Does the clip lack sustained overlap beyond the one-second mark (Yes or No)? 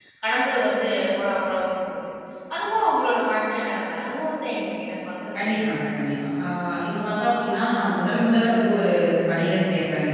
Yes